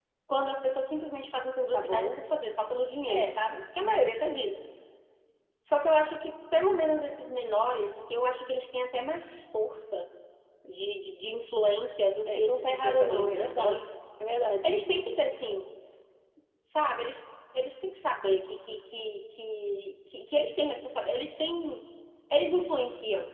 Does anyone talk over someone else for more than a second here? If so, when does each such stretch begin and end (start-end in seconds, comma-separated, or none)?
12.3-13.8